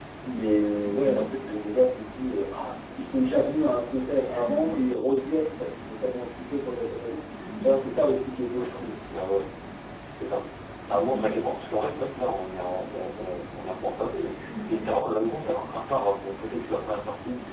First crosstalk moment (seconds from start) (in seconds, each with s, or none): none